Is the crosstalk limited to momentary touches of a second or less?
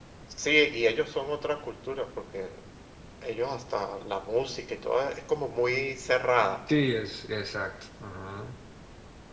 Yes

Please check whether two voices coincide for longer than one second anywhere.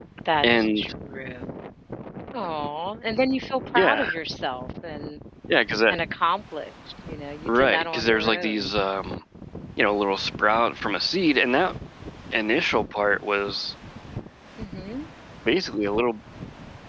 Yes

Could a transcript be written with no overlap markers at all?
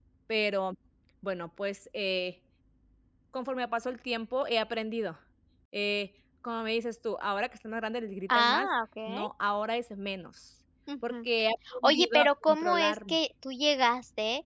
No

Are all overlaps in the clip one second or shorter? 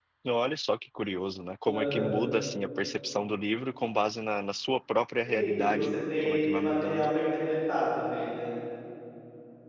No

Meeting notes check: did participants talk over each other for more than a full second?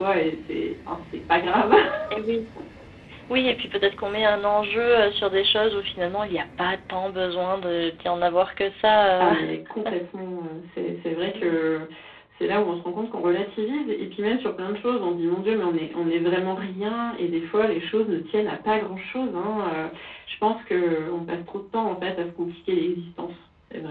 No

